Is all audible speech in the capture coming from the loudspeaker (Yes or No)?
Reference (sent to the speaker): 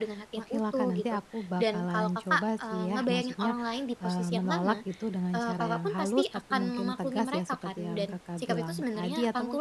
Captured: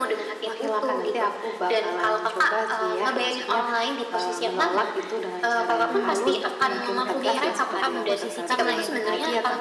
No